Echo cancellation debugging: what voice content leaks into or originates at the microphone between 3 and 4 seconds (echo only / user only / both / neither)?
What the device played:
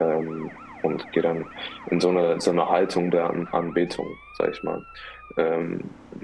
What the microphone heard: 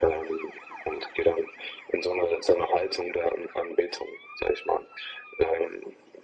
echo only